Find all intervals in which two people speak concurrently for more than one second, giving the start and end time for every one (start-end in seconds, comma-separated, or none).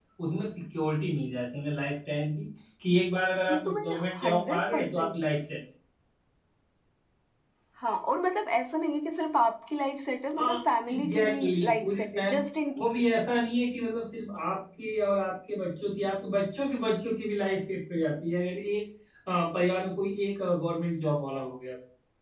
3.4-5.1, 10.9-12.4